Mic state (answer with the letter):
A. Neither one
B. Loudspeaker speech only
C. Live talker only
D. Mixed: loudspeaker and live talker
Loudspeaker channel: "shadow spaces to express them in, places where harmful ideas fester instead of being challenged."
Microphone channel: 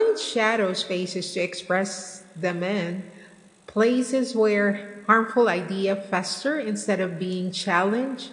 B